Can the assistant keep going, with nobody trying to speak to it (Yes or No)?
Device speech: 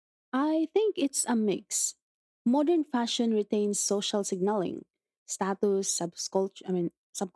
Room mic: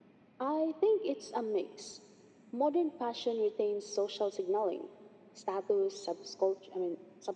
Yes